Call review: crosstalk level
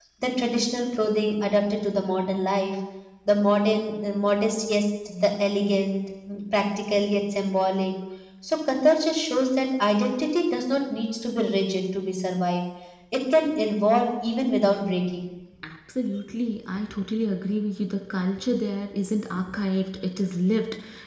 none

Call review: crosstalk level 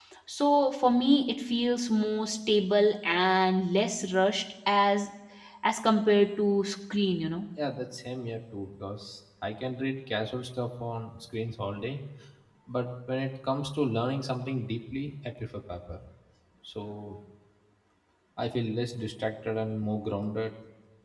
none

